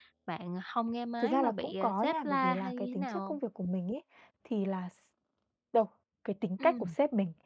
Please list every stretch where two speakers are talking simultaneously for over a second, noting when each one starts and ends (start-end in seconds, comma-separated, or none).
1.2-3.4